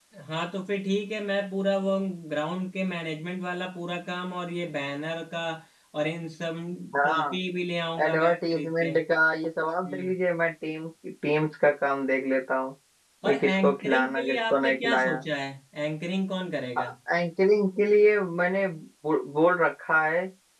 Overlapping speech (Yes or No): Yes